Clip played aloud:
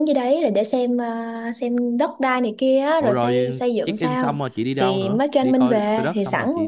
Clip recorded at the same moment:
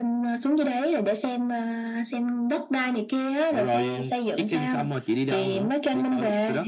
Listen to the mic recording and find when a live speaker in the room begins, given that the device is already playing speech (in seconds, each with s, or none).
none